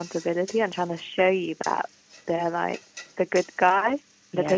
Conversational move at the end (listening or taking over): listening